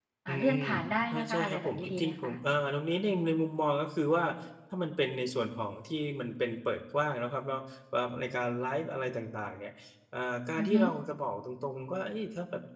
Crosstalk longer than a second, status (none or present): present